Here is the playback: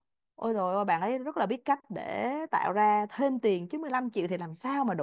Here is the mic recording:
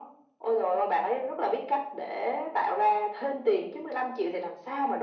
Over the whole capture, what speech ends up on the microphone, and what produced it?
echo only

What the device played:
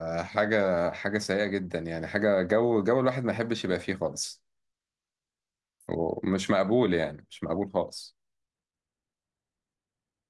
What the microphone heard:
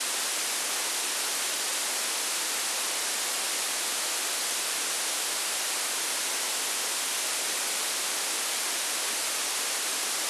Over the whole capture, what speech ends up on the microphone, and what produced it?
neither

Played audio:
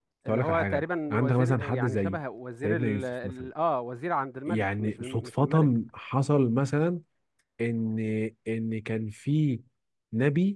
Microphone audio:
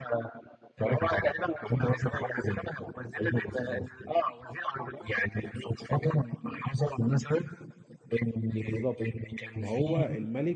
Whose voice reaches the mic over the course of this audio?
both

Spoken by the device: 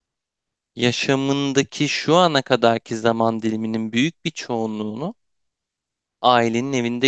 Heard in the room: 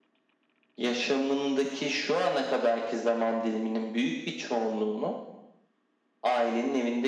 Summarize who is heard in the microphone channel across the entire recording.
echo only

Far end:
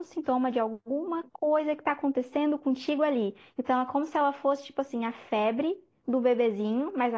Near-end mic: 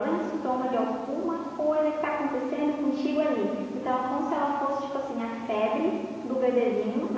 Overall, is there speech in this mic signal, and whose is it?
echo only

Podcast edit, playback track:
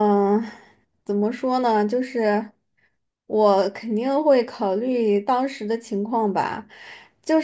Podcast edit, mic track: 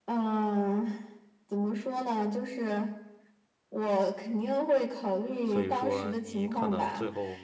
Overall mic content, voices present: both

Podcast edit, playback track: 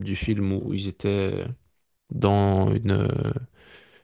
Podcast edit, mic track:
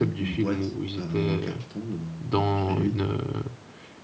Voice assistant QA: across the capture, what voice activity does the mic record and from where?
both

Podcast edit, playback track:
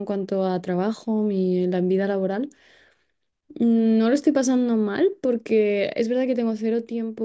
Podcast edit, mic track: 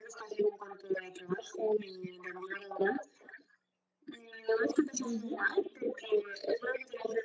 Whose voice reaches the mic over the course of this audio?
both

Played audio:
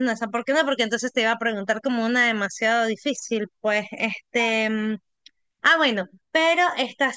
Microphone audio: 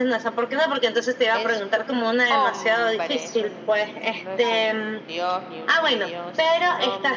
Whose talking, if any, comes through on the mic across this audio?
both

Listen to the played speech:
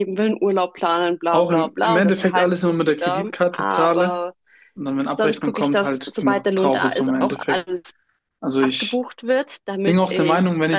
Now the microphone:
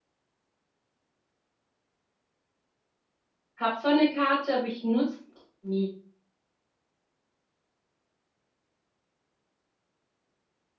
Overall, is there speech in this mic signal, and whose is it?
user only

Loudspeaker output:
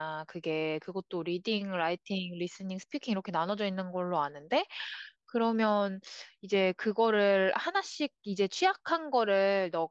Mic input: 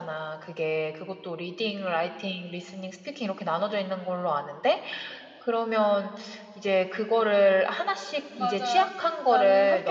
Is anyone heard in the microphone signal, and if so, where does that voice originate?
both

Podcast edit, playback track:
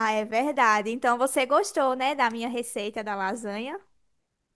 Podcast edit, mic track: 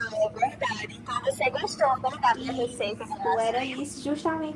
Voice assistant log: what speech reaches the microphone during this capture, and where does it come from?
both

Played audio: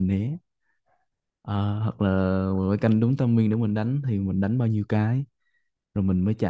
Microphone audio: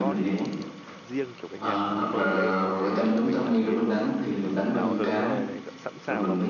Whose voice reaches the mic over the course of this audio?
both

